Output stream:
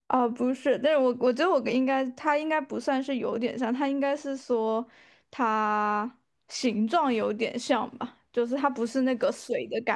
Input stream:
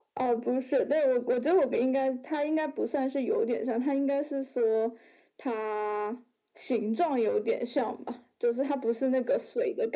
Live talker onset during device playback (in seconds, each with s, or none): none